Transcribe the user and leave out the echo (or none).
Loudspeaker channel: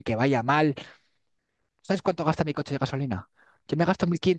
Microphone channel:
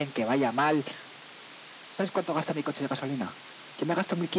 none